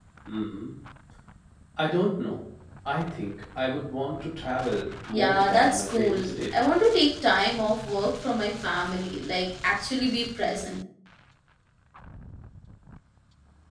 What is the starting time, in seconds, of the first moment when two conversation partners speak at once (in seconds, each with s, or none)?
5.1 s